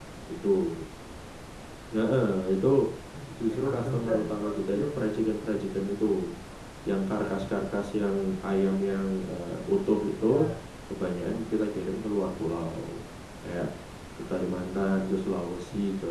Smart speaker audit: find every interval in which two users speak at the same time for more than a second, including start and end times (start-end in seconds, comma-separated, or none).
3.5-4.8